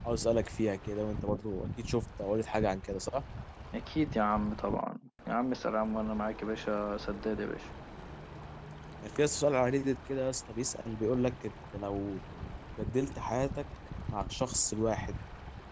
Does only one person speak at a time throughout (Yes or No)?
Yes